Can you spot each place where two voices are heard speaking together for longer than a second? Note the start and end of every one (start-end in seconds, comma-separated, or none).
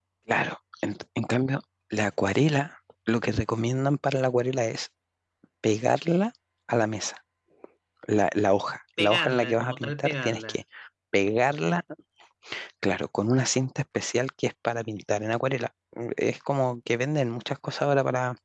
9.0-10.5